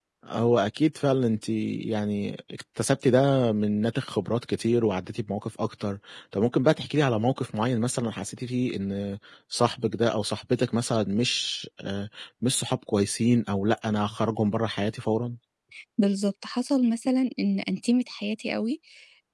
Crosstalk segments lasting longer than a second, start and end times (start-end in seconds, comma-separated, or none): none